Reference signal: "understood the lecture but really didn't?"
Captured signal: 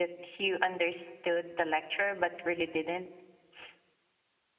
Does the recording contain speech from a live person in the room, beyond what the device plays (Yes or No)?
No